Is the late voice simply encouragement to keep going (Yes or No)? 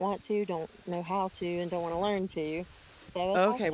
No